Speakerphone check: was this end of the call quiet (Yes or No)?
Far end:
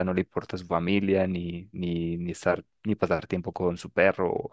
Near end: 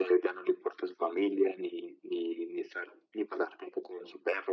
Yes